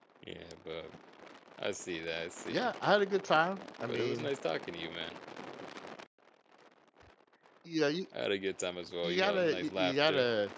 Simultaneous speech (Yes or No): Yes